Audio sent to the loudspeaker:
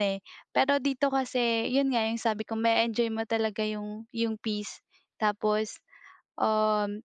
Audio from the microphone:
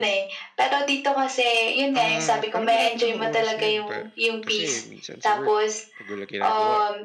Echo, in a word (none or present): present